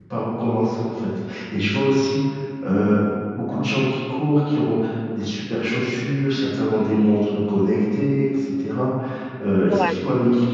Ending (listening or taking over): listening